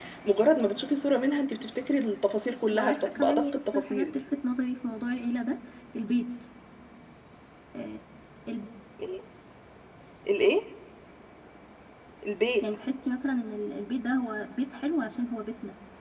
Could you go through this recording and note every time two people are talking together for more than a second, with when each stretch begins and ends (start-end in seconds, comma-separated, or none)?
2.7-4.1